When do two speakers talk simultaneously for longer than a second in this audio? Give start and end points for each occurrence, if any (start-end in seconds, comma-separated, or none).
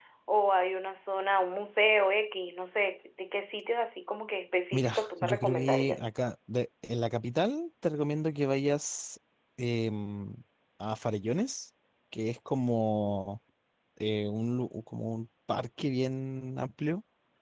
4.7-6.0